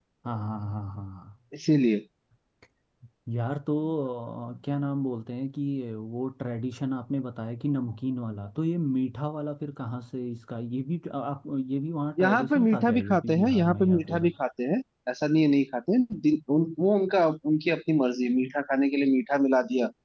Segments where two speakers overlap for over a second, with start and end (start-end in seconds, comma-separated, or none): 12.2-14.3